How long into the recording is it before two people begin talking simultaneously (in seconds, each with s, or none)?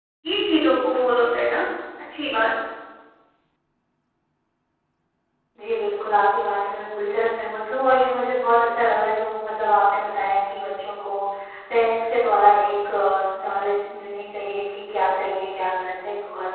none